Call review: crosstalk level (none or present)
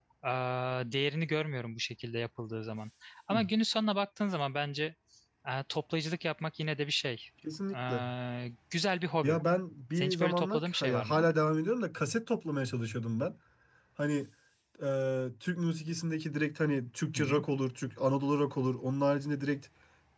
present